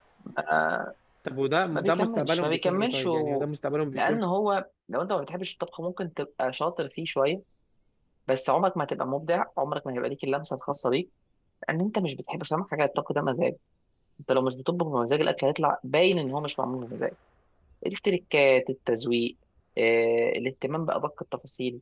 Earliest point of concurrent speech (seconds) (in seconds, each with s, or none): 1.8 s